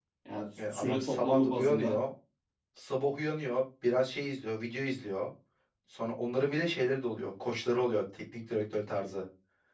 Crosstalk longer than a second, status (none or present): present